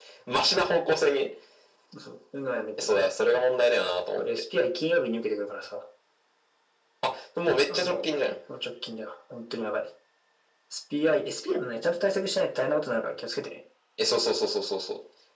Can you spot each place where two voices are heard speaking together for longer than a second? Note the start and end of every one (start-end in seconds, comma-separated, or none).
none